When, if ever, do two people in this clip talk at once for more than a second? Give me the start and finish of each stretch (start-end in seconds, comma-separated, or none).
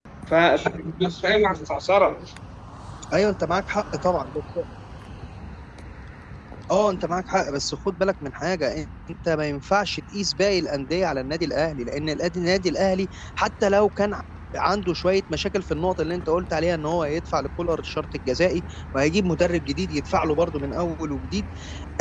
none